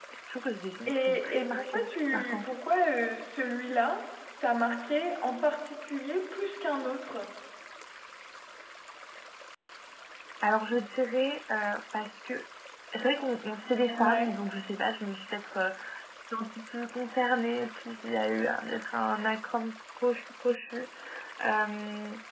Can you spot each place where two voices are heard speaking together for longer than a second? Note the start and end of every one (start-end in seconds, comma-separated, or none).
0.9-2.5